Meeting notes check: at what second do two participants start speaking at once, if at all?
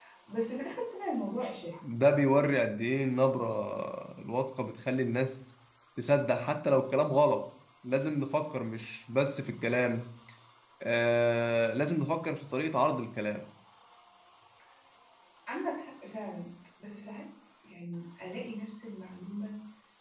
none

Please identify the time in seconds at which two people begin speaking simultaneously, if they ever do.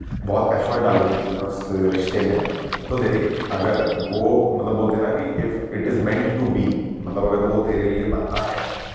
none

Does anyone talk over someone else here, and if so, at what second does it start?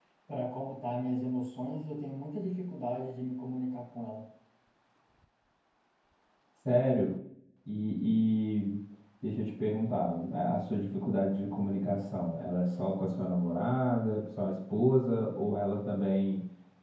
none

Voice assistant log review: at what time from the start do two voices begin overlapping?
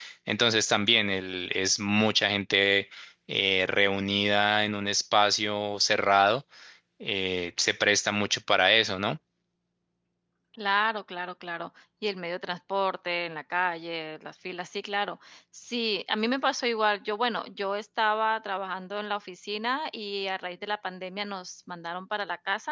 none

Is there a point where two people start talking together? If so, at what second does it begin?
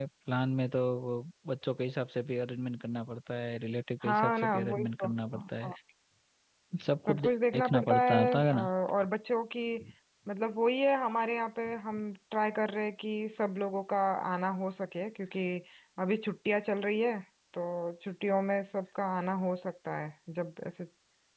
4.0 s

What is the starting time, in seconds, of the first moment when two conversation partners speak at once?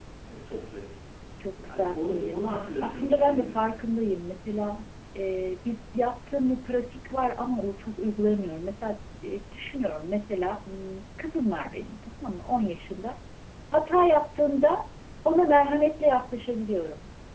1.6 s

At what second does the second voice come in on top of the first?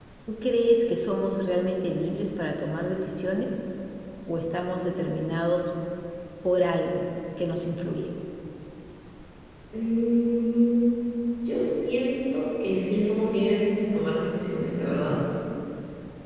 none

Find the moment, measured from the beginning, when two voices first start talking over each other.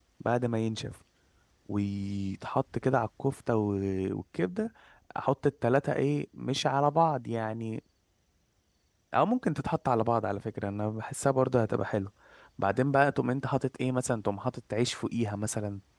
none

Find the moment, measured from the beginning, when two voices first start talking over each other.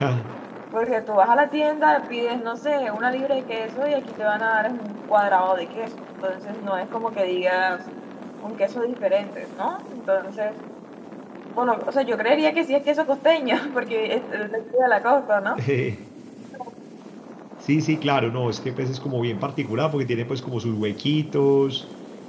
none

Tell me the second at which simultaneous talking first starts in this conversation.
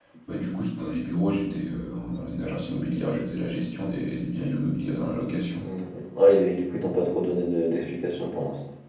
none

